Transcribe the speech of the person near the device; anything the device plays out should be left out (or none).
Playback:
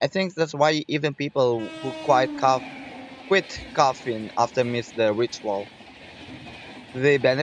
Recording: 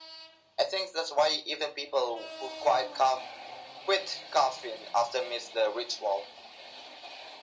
none